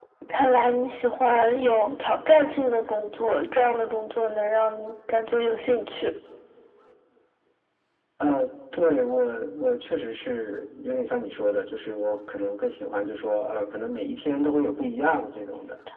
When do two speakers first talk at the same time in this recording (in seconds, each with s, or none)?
none